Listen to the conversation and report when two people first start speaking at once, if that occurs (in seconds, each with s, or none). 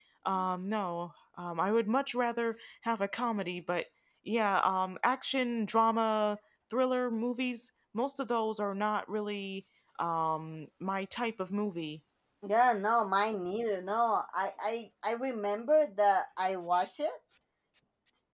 none